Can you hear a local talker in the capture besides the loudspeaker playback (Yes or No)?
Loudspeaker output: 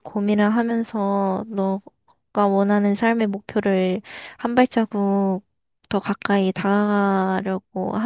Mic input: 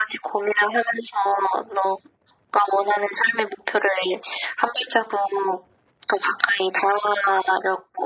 No